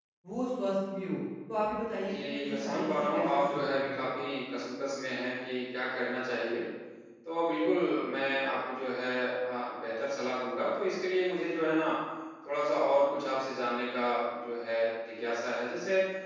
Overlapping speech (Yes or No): Yes